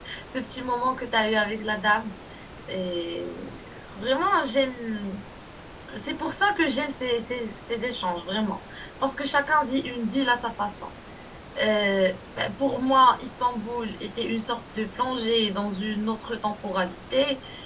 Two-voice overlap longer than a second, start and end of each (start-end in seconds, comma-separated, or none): none